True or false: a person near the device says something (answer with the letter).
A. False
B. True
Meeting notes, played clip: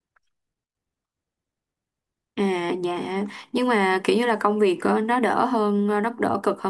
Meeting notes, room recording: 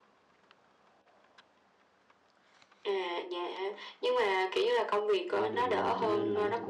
B